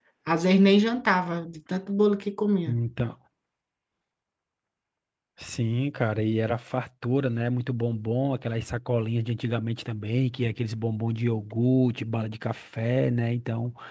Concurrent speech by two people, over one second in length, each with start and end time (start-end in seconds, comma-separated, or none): none